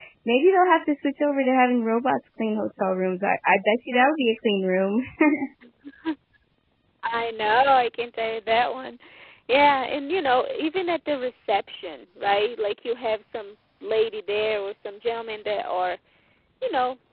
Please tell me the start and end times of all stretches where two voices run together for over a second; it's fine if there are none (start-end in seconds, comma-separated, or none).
none